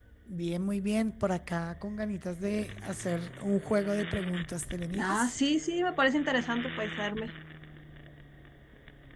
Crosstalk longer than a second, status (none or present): none